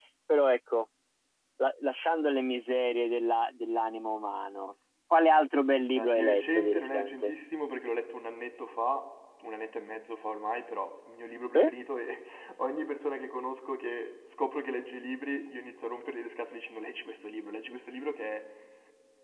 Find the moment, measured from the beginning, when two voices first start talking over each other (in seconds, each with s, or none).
5.9 s